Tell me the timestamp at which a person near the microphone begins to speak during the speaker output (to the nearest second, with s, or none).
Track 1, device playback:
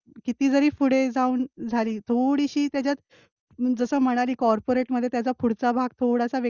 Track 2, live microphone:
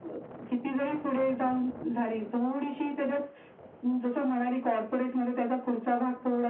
none